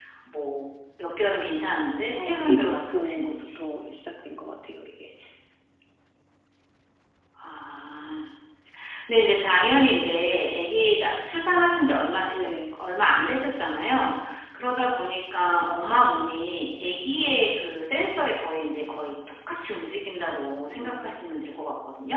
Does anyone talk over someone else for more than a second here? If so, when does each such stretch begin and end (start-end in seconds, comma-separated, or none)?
2.1-3.6